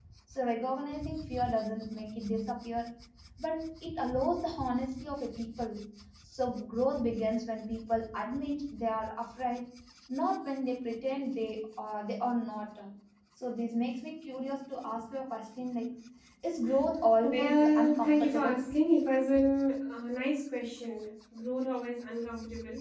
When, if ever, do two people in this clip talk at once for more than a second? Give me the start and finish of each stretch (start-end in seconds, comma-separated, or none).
17.2-18.6